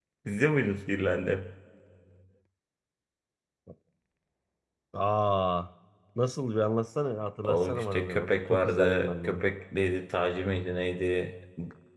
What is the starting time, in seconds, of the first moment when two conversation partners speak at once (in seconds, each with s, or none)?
7.4 s